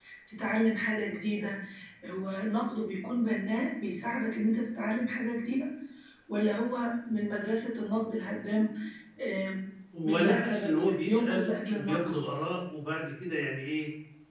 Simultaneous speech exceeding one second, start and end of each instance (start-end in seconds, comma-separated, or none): 10.0-12.0